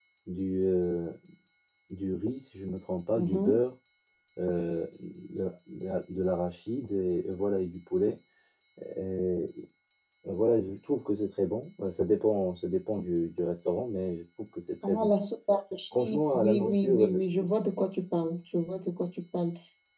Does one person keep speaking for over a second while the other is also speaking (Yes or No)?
Yes